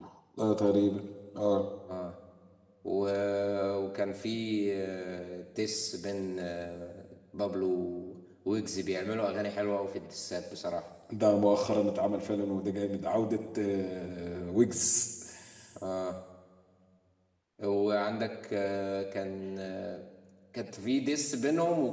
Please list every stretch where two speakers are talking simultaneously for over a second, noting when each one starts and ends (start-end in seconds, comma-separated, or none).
none